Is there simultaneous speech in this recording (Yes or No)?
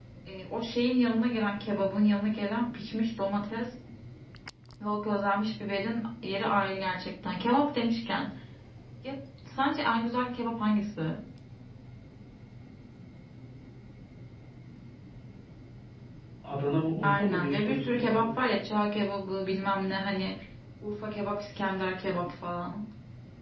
Yes